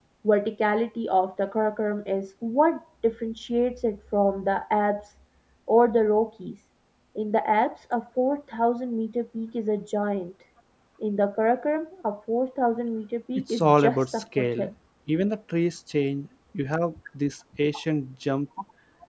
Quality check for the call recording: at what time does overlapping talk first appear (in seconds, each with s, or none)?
13.4 s